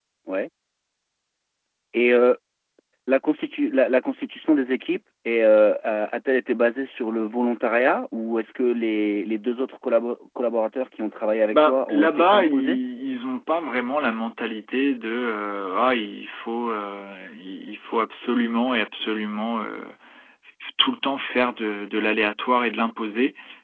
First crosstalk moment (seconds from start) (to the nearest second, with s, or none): 12 s